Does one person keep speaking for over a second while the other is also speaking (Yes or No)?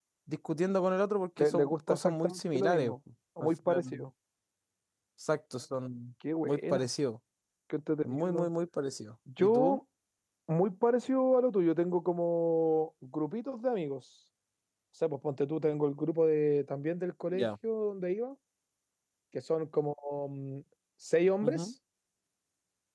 Yes